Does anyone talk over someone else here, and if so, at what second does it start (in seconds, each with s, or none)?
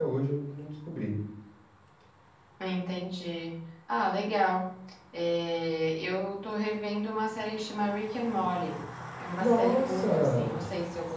9.4 s